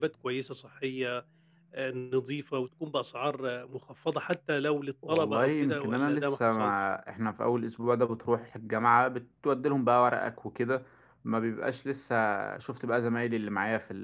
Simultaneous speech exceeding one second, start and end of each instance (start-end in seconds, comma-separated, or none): 5.1-6.7